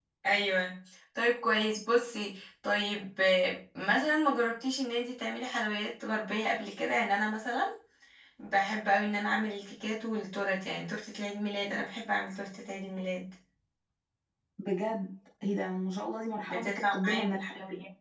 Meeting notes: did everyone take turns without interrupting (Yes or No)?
No